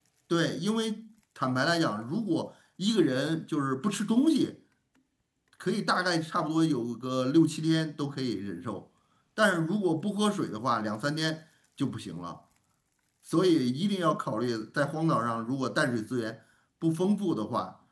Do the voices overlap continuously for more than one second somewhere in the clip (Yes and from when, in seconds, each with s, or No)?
No